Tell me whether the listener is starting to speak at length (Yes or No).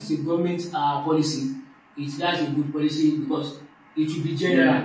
No